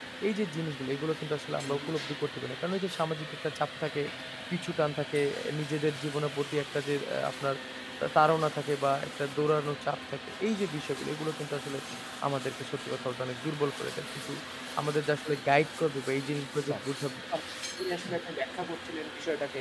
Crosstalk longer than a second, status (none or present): none